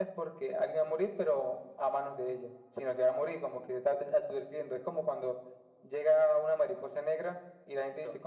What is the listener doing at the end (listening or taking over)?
listening